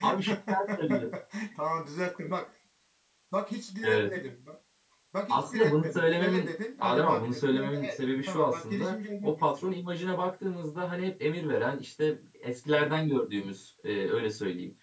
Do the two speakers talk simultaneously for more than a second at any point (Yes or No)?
Yes